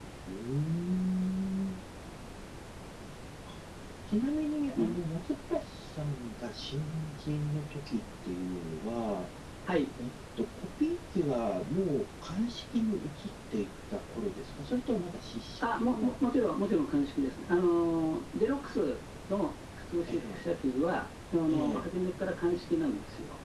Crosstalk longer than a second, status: none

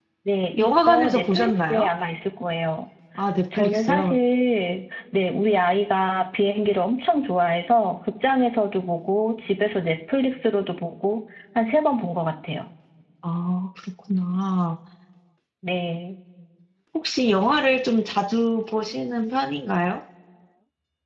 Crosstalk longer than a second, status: present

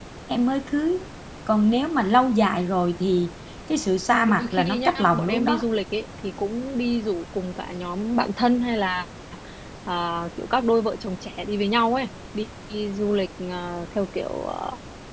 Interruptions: present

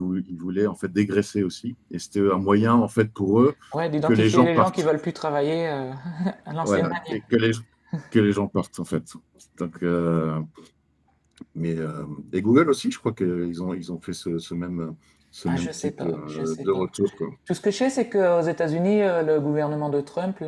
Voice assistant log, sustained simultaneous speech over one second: present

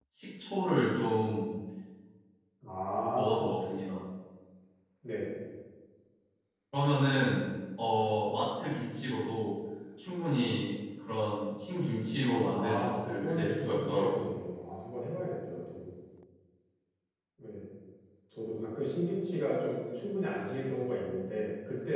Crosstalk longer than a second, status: present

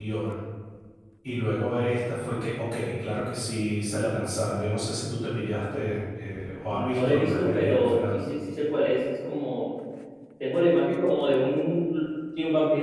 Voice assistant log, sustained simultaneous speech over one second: present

